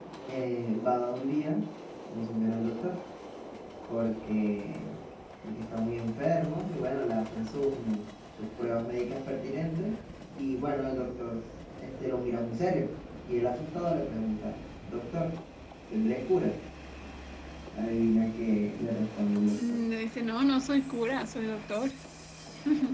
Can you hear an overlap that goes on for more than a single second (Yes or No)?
No